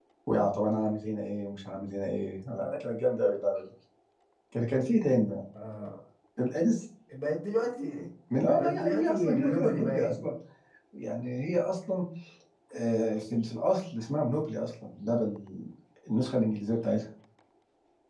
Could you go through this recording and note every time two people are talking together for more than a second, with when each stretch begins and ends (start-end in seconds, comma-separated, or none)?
8.6-10.1